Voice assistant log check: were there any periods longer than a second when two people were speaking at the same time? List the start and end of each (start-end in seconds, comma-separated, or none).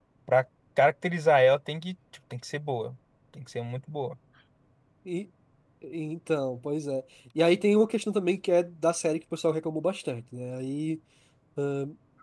none